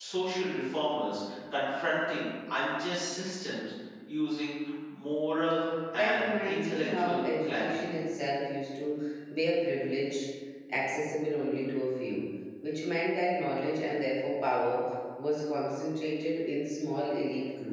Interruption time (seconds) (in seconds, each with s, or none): 6.0 s